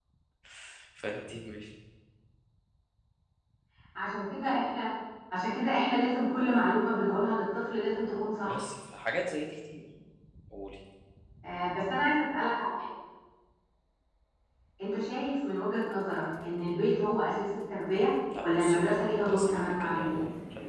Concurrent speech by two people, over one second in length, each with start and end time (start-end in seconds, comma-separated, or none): 18.4-20.1